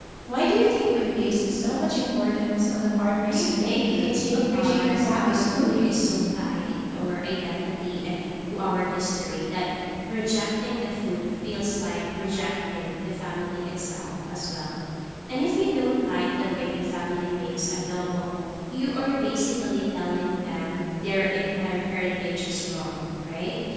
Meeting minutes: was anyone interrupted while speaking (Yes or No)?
Yes